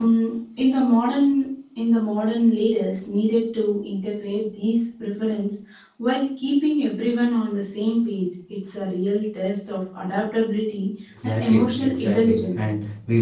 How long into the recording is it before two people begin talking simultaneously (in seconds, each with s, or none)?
11.2 s